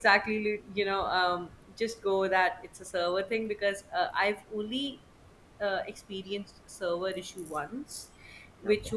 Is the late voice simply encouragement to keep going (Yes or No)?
Yes